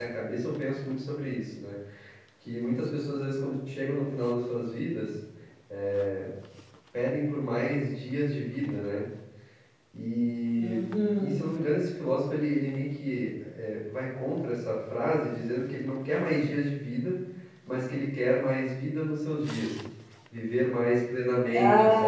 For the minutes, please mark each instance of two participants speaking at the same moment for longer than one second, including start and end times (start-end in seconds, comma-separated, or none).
none